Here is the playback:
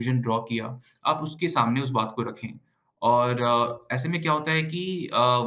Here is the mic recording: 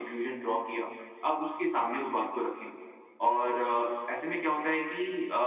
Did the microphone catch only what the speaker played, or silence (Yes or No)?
Yes